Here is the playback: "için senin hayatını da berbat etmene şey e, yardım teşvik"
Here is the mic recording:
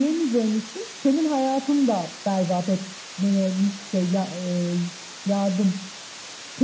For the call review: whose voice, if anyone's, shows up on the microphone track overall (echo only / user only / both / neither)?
echo only